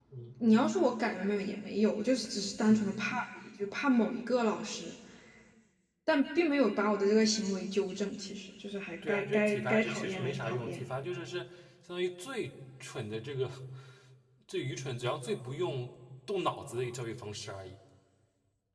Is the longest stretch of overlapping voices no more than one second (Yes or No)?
No